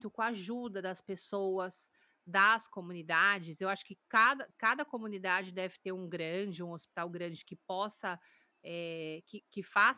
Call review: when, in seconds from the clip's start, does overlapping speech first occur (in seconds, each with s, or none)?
none